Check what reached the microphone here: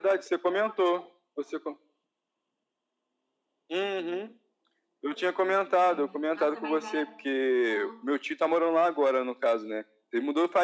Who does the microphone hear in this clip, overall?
both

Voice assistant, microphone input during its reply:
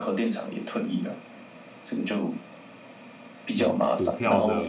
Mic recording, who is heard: both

